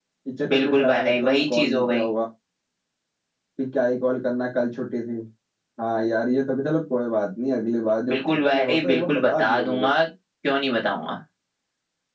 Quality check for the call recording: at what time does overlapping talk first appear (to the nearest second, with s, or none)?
1 s